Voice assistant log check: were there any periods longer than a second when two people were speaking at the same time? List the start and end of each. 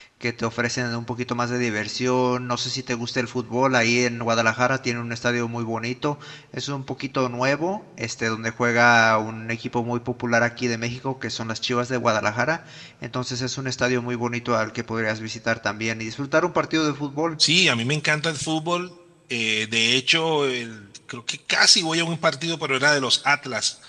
none

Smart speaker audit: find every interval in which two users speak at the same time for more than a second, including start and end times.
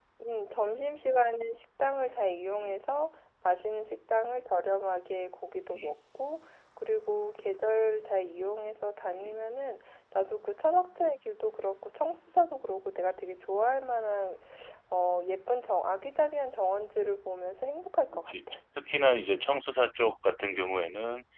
none

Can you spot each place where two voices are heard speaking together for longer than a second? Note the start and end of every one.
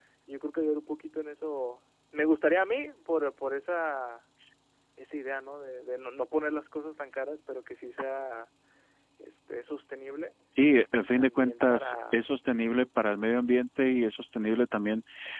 11.0-12.3

